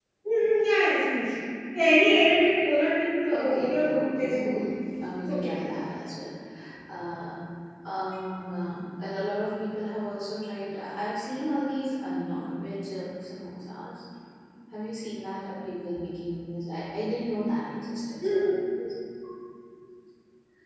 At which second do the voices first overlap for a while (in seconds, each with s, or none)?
3.3 s